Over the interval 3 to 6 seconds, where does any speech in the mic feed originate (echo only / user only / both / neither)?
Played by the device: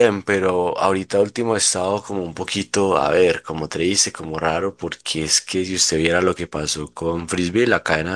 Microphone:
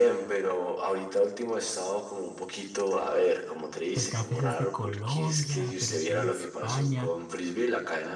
both